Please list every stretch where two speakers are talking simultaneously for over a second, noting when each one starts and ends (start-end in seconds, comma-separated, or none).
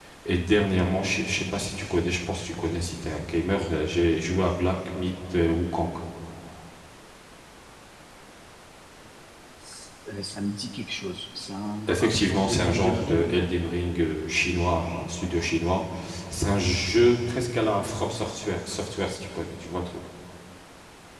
11.9-13.5